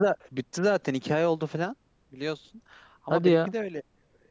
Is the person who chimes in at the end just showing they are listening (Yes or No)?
Yes